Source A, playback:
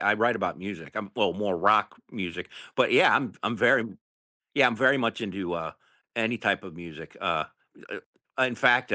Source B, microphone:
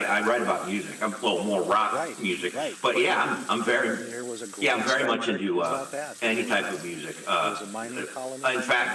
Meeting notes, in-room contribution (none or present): present